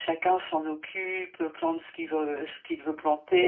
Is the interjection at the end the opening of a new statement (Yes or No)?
No